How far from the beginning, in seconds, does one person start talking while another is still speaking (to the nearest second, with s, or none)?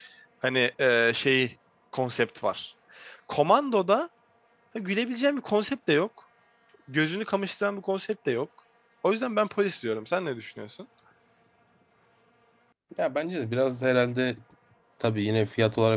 none